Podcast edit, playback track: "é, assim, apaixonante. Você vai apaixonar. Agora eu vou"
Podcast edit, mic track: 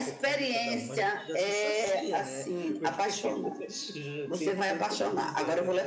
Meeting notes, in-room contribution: present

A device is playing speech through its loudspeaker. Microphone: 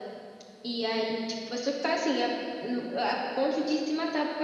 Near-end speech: none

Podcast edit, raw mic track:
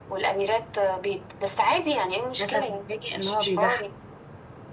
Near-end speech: present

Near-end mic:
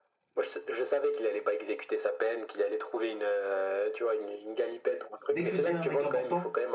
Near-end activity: present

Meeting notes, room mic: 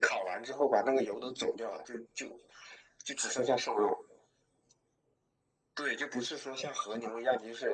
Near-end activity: none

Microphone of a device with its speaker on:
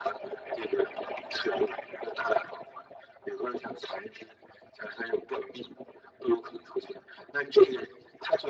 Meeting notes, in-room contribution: none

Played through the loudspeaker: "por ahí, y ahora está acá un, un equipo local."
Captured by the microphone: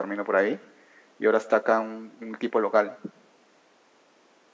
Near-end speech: none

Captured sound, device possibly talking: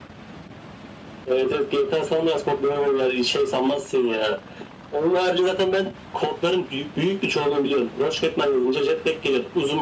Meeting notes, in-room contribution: none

